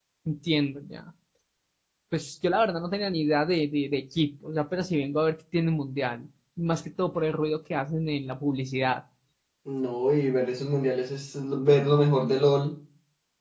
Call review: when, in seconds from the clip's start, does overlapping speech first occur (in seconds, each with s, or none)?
none